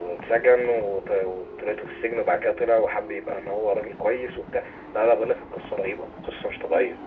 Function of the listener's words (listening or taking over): taking over